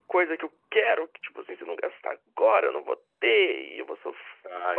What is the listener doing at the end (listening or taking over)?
listening